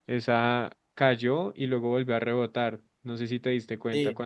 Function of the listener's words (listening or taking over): taking over